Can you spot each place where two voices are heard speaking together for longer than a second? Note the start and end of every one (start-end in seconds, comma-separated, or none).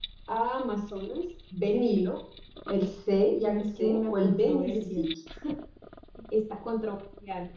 3.6-5.0